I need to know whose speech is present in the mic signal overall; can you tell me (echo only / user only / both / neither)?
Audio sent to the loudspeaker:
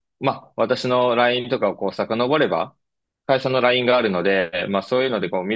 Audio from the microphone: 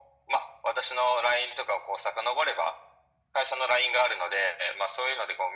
echo only